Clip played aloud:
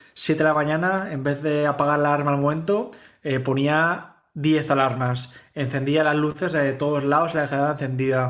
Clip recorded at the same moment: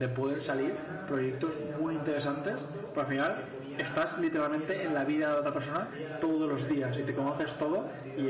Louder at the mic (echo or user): user